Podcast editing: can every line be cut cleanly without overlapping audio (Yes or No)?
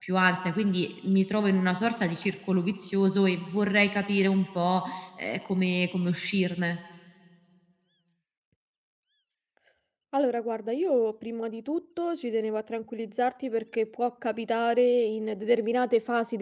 Yes